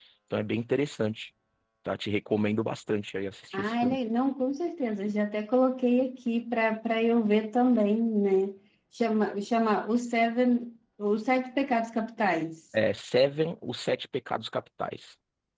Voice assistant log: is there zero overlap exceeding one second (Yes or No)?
Yes